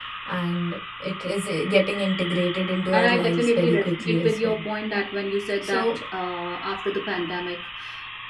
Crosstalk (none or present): present